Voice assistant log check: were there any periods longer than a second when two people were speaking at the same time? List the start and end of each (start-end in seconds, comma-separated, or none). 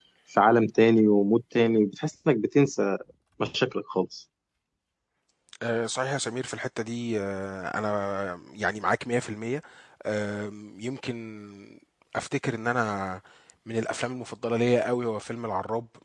none